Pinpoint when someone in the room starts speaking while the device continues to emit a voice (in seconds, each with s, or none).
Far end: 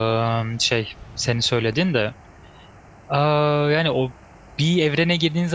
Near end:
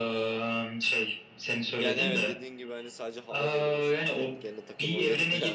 1.7 s